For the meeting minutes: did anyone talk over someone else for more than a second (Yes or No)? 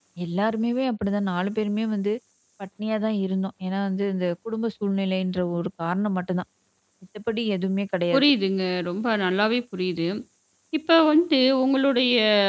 No